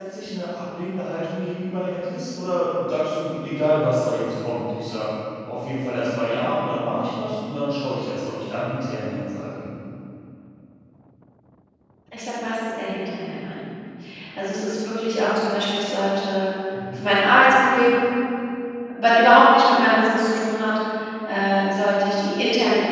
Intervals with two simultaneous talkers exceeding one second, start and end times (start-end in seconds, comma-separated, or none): none